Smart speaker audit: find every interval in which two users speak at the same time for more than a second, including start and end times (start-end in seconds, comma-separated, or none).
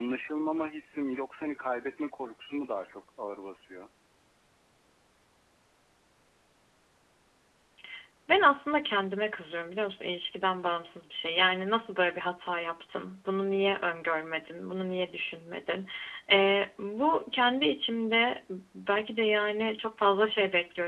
none